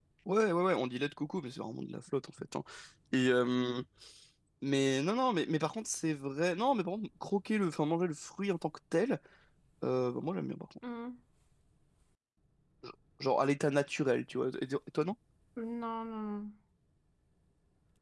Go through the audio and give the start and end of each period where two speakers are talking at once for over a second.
none

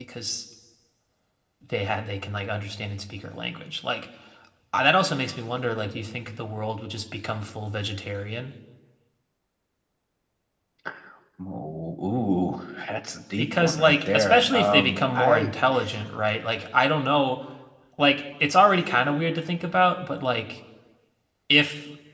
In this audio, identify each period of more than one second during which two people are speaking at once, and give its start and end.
13.4-15.5

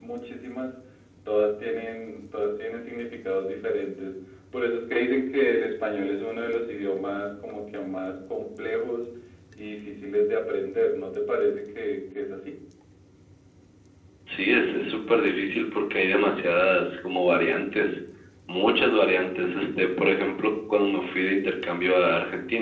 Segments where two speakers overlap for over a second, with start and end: none

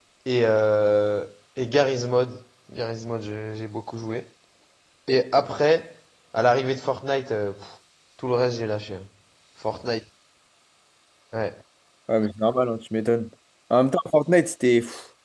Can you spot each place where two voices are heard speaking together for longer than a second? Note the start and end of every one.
none

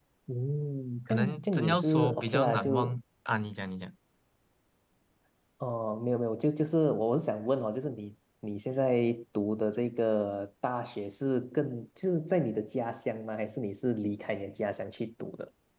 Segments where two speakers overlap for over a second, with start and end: 1.1-3.0

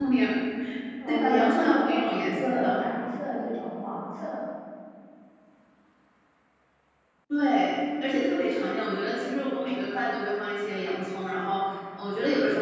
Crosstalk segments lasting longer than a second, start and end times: 1.1-2.8

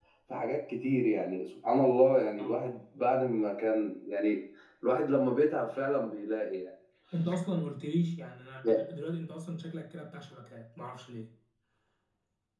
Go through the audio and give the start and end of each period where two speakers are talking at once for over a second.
none

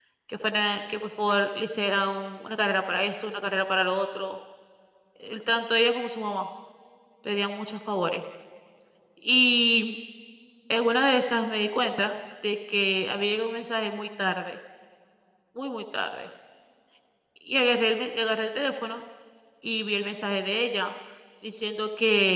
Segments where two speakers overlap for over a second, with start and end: none

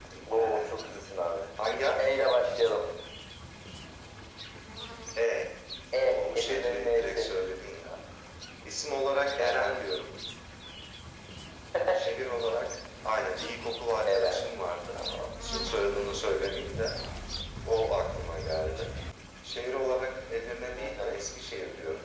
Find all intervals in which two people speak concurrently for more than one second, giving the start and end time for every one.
6.0-7.3

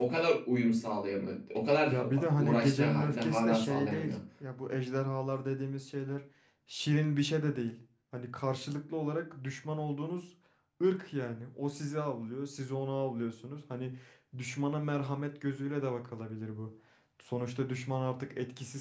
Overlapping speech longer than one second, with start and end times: 1.9-4.2

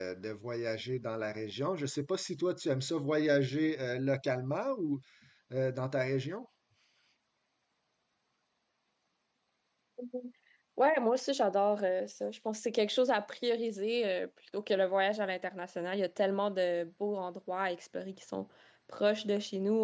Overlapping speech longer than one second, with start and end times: none

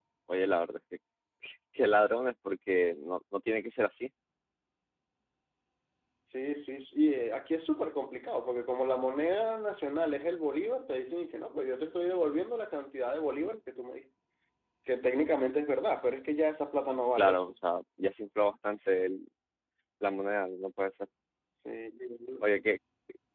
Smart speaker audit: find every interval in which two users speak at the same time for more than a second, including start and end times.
none

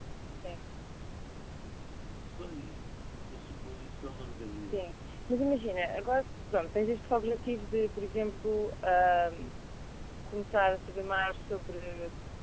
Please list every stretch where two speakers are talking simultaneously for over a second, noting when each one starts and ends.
none

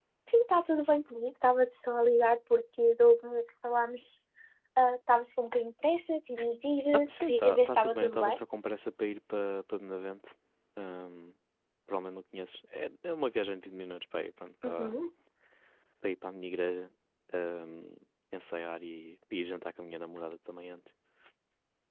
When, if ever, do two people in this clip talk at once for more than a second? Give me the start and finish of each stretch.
6.9-8.4

